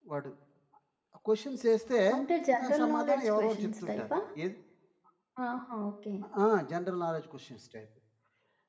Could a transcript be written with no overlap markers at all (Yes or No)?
No